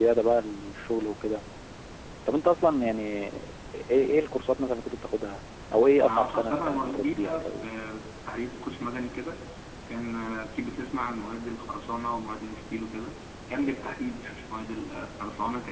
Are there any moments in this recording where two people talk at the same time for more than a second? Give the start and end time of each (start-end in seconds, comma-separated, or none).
6.0-7.5